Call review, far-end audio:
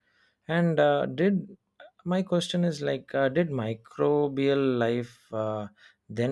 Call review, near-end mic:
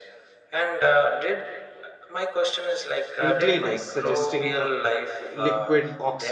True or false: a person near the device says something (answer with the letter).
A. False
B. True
B